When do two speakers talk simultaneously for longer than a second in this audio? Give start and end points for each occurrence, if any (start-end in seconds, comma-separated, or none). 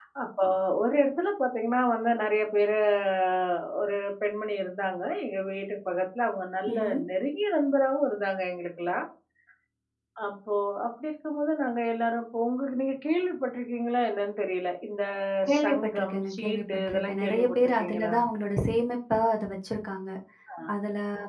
15.6-18.1